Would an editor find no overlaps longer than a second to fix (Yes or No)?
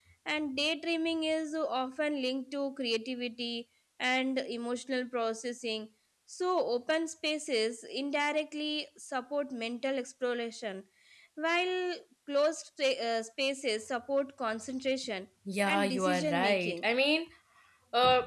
No